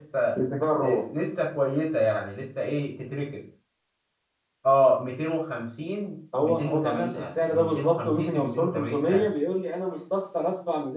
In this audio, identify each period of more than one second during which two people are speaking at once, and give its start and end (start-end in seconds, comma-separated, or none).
6.4-9.3